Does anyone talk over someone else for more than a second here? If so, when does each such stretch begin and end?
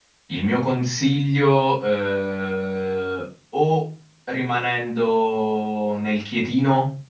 none

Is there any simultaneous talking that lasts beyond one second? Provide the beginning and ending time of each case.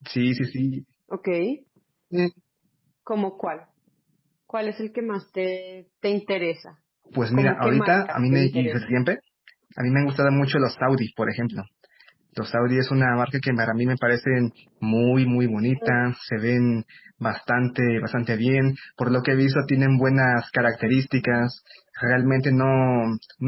7.3-9.0

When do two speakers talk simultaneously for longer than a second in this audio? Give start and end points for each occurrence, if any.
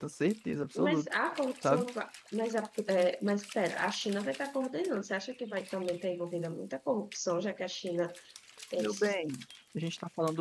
none

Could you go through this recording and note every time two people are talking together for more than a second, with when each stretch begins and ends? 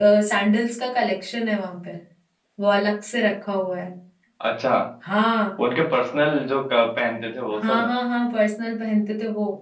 none

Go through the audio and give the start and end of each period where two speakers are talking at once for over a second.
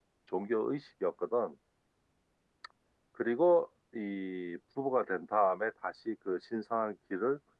none

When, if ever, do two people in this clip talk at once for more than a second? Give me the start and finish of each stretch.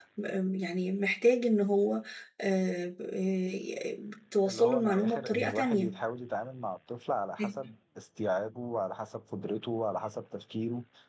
4.5-5.9

